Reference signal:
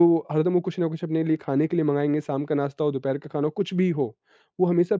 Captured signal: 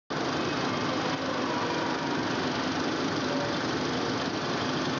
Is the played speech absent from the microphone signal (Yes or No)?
Yes